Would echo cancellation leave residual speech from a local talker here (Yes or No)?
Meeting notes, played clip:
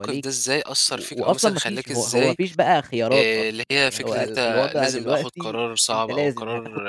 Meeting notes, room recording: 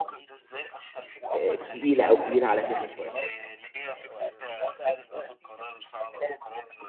Yes